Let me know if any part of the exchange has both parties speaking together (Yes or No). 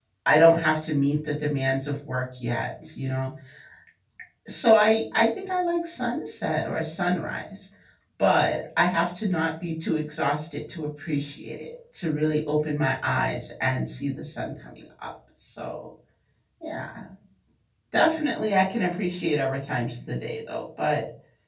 No